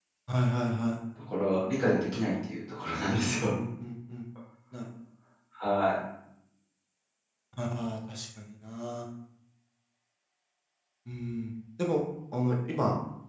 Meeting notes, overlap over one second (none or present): none